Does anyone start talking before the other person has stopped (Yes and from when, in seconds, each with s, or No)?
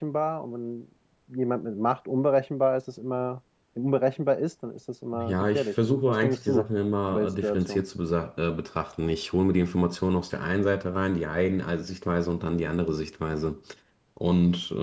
Yes, from 5.1 s